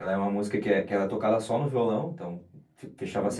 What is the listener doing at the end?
listening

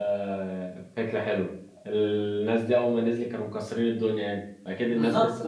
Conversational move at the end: taking over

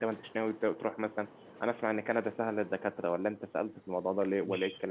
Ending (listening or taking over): taking over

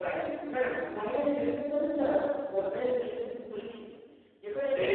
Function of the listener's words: taking over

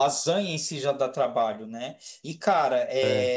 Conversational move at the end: listening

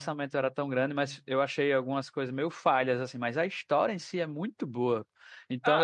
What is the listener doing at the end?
taking over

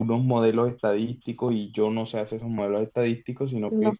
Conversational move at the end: listening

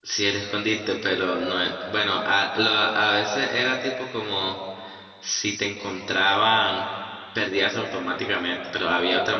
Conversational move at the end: listening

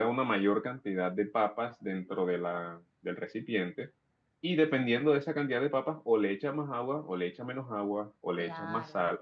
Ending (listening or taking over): listening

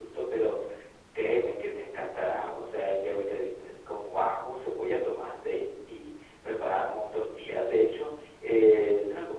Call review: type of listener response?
listening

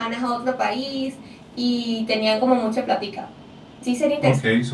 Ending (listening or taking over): taking over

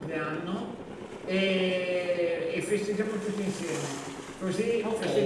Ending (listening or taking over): taking over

